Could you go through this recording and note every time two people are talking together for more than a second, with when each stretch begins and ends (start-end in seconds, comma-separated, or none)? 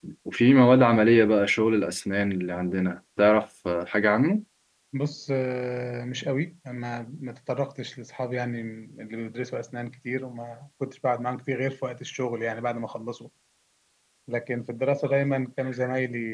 none